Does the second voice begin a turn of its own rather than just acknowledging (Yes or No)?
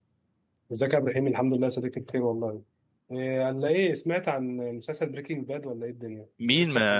Yes